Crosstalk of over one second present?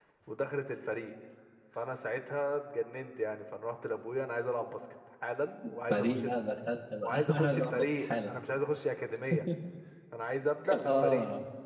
Yes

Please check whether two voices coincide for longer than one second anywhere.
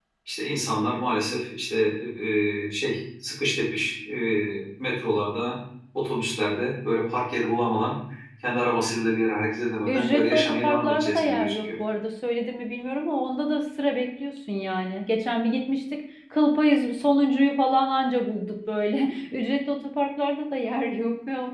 Yes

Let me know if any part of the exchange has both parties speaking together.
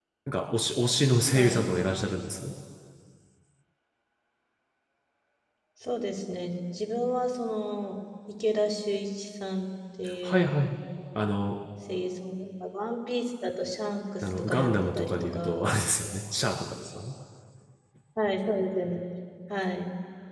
Yes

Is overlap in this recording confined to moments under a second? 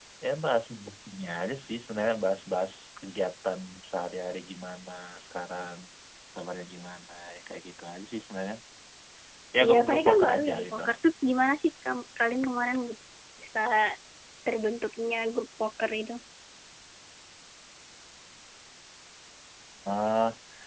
No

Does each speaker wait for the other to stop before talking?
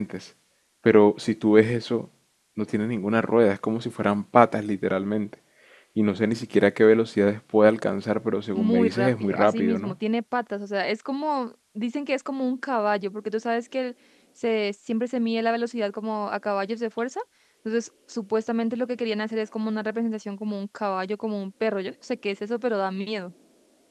No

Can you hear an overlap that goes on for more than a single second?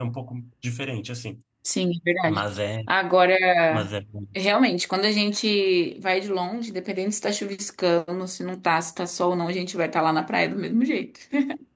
No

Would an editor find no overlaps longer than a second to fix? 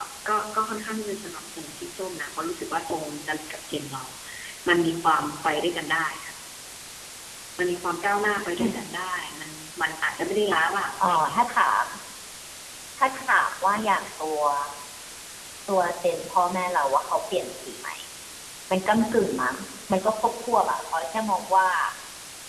Yes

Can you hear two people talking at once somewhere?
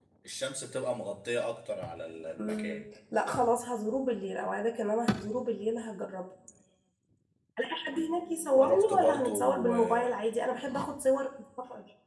Yes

